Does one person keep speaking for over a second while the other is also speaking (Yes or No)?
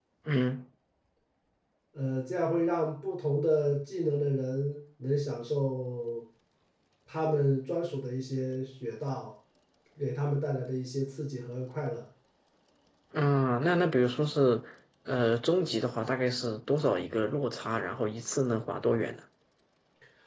No